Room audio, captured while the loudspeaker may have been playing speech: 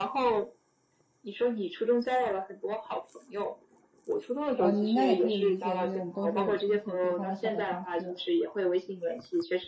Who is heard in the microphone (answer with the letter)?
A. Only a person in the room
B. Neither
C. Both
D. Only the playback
C